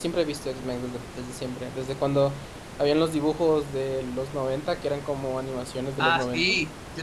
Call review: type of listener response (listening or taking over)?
taking over